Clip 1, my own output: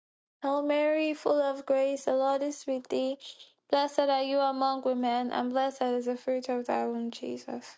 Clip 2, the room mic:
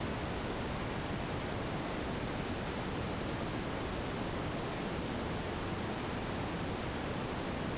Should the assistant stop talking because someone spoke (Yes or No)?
No